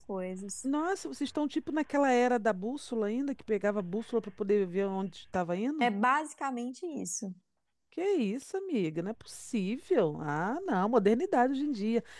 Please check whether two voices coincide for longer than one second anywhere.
No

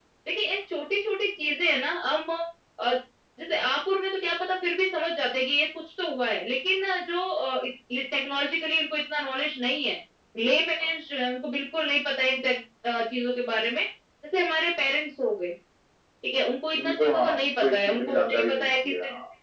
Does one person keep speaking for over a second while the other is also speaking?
Yes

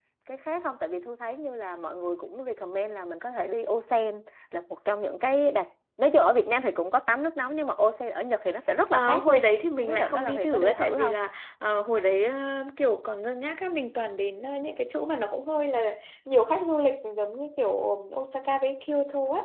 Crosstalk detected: Yes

